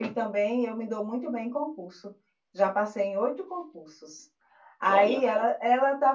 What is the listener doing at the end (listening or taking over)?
listening